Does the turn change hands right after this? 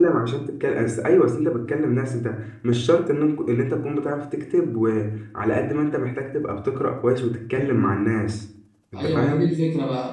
Yes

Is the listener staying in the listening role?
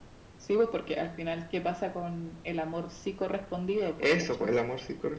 No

